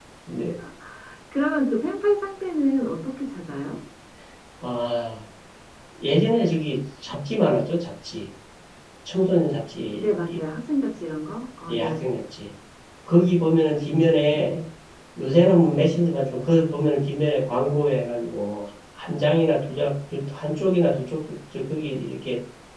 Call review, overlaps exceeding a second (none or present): none